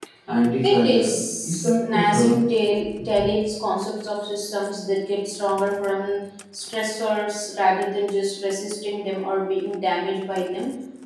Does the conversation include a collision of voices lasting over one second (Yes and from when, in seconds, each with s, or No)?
Yes, from 0.6 s